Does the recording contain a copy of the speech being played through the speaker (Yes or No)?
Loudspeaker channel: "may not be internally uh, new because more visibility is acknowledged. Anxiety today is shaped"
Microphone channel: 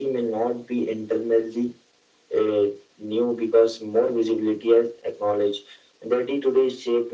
Yes